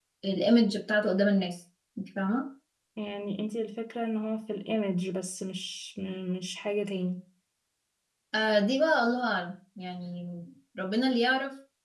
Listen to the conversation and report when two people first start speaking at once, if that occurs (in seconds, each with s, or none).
none